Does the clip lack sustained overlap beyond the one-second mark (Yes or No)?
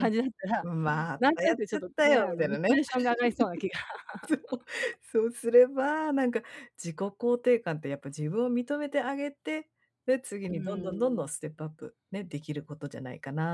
No